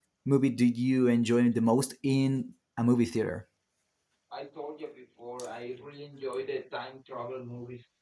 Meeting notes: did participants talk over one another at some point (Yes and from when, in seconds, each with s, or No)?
No